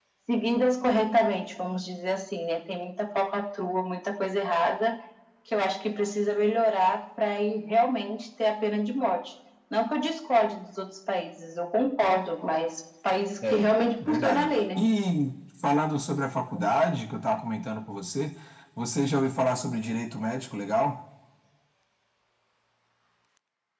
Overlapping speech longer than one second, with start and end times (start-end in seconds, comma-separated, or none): 13.4-14.8